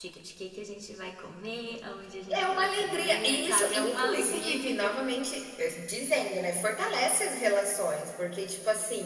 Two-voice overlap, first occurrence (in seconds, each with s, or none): 2.3 s